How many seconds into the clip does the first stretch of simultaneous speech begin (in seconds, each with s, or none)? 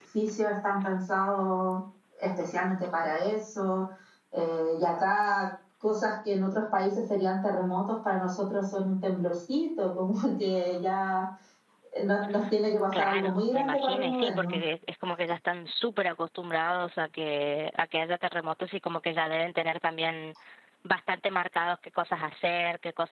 12.9 s